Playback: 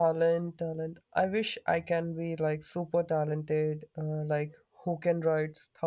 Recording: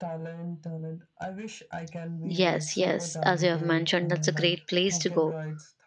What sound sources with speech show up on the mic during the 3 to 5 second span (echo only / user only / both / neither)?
both